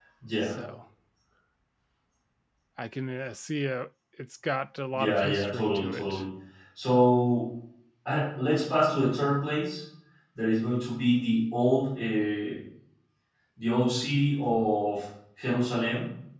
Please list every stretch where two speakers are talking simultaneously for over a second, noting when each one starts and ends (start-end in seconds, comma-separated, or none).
4.9-6.2